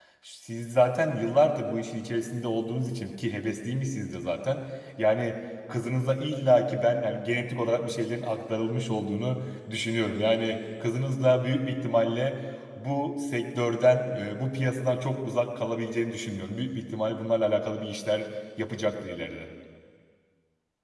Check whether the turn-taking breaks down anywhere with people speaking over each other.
No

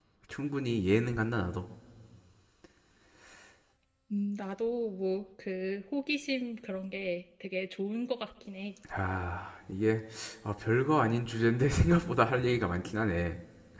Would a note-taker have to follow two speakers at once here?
No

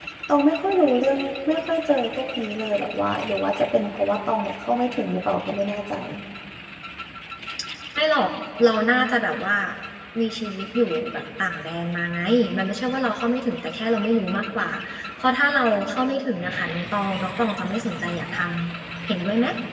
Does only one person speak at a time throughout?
Yes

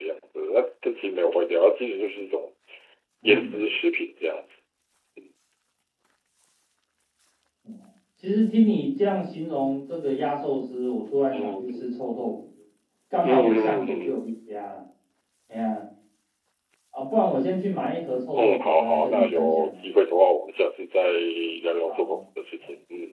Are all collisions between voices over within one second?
No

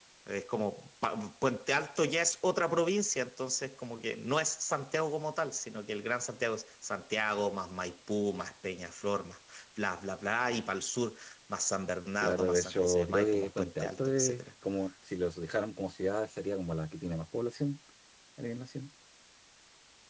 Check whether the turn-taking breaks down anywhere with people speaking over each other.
Yes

